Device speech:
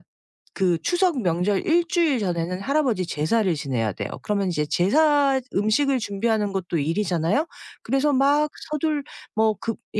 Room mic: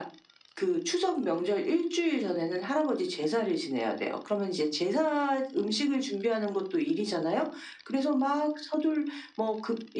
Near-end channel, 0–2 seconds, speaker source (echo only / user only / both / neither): echo only